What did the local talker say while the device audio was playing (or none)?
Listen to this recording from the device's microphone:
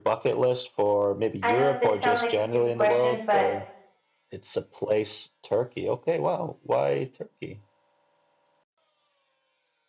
I know this sounds like a stupid question, but